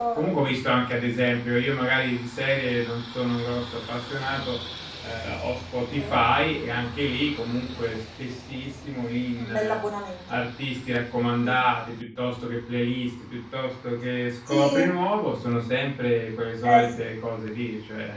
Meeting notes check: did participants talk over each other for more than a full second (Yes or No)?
No